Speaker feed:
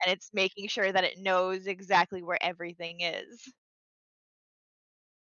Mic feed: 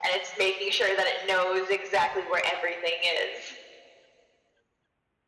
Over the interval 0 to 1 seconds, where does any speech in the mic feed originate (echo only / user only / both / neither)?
echo only